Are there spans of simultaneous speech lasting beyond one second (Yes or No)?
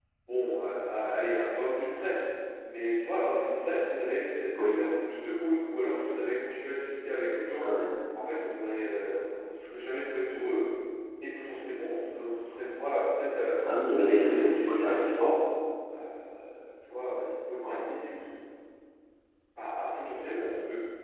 Yes